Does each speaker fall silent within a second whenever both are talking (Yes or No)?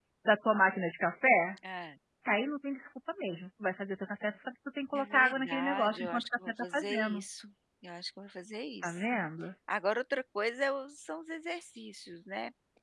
No